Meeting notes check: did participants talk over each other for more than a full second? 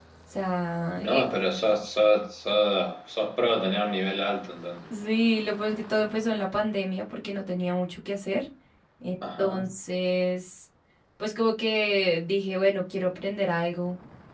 No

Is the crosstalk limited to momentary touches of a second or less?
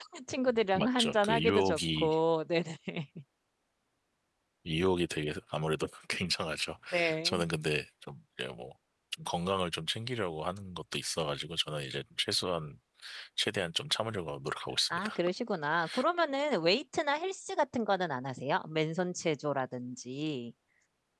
No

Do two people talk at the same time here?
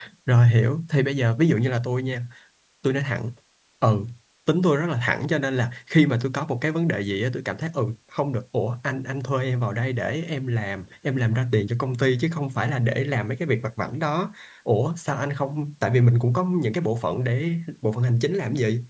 No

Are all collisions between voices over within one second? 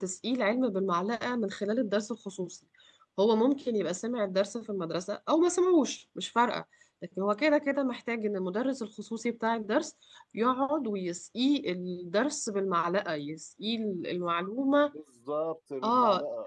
Yes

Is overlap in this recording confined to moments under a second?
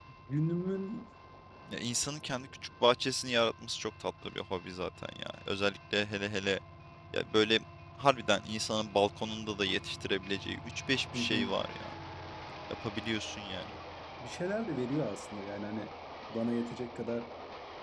Yes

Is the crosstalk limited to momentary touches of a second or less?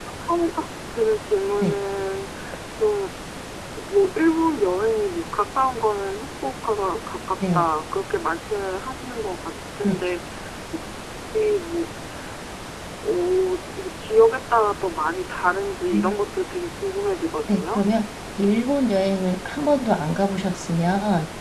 Yes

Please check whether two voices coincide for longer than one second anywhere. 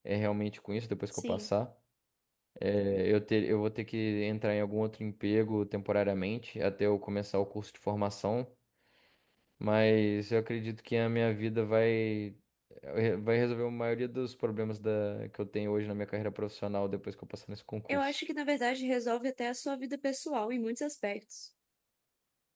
No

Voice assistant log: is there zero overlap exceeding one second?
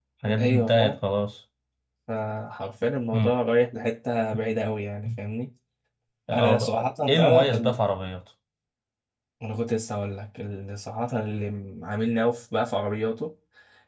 No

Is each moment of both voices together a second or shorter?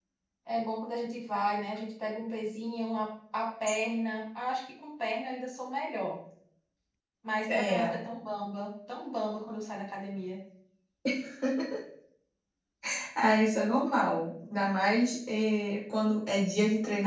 Yes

